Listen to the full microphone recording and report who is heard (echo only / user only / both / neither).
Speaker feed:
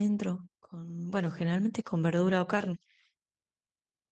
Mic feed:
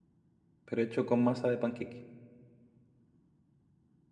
user only